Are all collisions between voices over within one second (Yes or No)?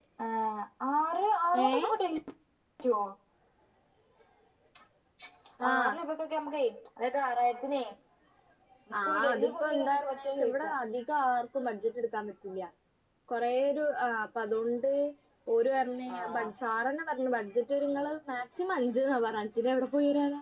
No